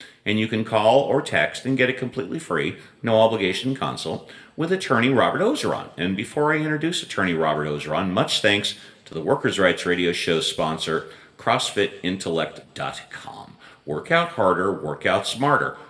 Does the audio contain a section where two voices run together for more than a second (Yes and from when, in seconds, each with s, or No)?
No